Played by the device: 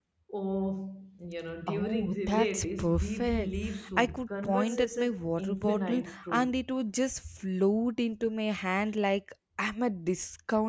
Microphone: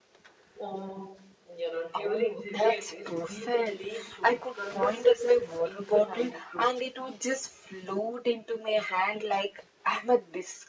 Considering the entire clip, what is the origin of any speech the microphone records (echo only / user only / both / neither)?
echo only